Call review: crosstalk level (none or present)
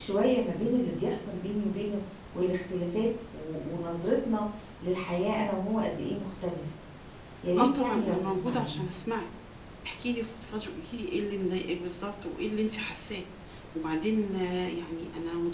present